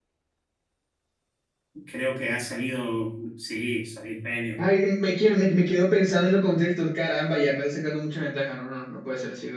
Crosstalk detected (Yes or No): No